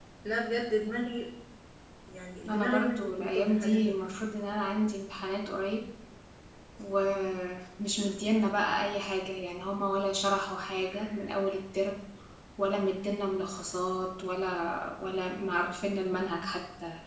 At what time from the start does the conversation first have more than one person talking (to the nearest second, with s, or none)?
2 s